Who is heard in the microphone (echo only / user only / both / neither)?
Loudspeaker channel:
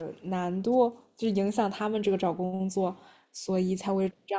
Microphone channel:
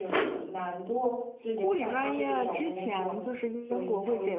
both